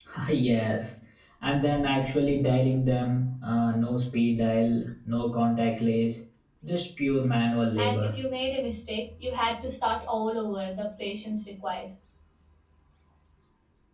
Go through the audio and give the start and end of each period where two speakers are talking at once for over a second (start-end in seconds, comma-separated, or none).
none